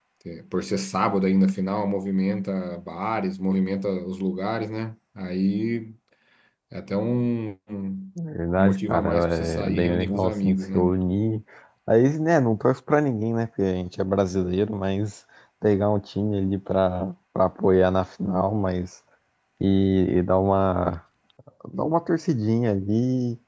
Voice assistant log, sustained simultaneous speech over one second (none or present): present